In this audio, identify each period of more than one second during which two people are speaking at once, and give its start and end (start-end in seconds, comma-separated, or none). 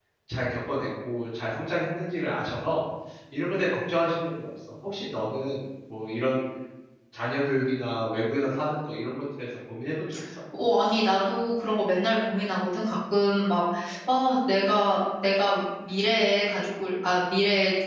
none